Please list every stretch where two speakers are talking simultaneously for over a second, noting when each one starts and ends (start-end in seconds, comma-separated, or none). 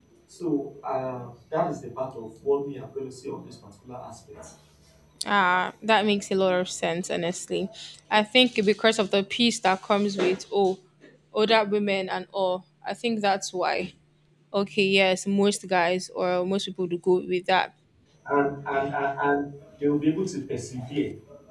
none